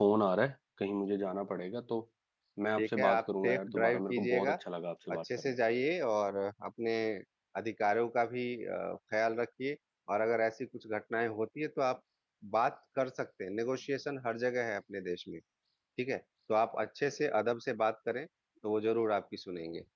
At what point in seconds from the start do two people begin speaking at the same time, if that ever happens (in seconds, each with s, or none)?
2.8 s